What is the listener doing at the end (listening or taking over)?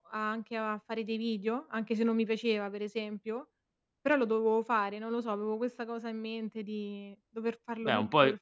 taking over